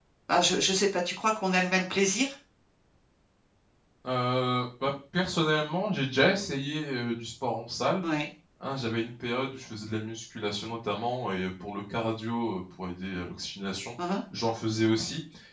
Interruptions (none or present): none